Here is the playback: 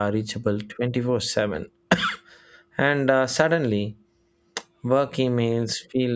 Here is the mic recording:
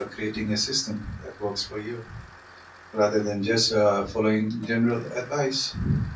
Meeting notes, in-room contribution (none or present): present